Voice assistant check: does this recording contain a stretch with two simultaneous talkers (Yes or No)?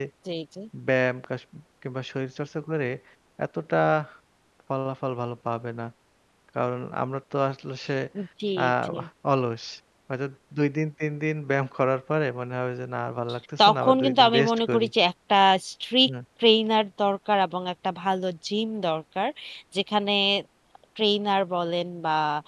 Yes